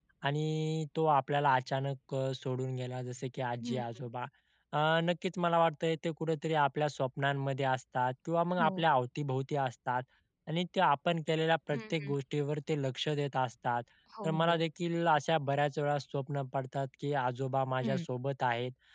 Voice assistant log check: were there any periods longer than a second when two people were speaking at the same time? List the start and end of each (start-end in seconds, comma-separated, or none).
none